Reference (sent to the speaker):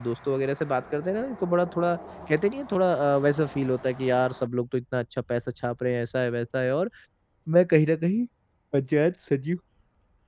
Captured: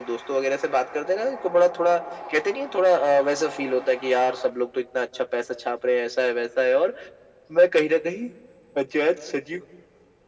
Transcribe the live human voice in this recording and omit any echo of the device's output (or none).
none